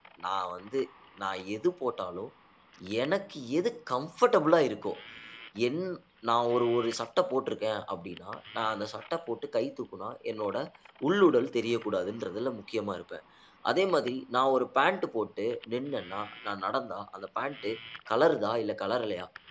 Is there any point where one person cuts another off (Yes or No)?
No